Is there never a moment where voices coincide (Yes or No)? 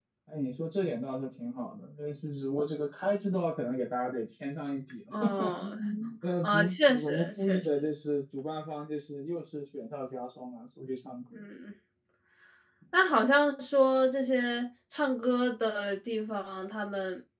No